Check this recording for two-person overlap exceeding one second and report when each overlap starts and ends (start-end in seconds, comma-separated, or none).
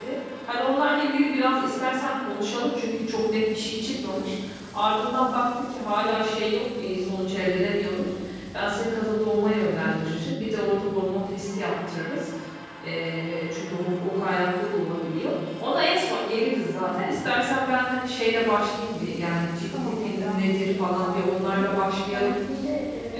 19.8-21.6